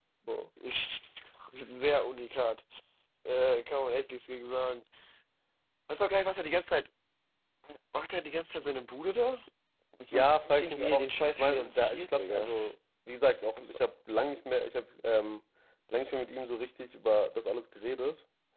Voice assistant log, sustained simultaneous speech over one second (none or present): present